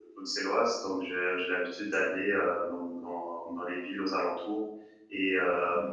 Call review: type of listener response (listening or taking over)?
listening